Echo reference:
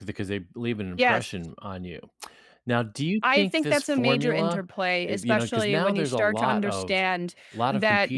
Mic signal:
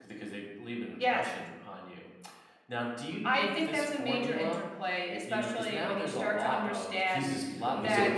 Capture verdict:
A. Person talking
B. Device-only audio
A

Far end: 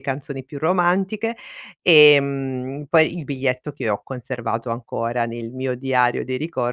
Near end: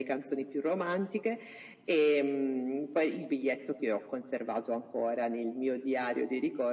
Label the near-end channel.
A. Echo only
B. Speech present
A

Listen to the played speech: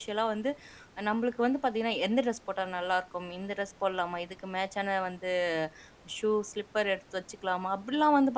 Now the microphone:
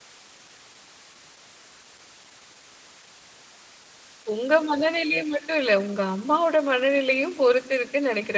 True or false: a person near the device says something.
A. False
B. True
B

